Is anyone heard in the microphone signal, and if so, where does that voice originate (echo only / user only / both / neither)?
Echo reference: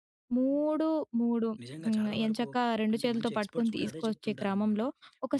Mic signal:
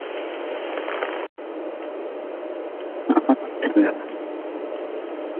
user only